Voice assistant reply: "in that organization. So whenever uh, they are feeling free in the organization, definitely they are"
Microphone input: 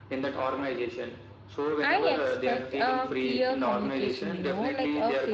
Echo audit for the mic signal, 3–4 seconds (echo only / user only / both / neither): both